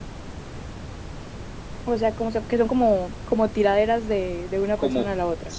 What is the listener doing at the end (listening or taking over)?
taking over